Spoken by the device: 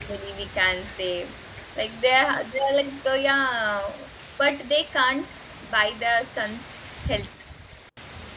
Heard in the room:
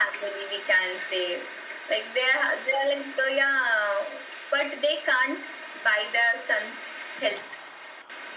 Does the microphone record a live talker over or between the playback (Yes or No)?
No